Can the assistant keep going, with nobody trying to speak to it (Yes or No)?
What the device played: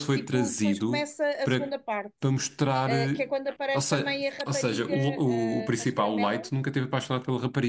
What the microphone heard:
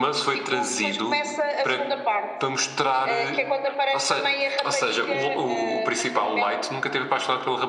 Yes